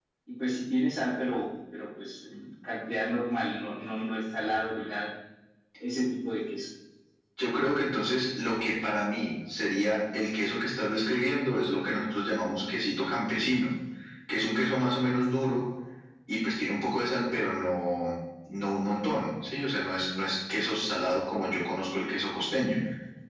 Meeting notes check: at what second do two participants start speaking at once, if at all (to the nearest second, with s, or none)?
none